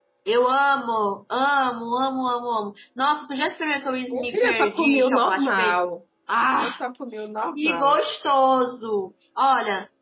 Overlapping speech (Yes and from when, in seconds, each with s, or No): Yes, from 4.1 s